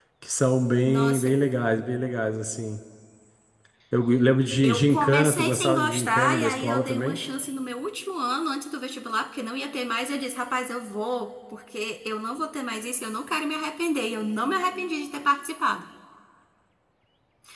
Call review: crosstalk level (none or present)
present